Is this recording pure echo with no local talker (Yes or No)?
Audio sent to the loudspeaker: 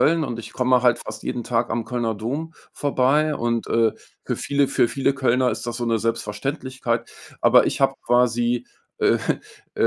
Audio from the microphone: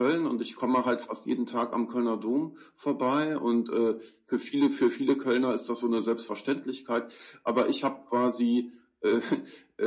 Yes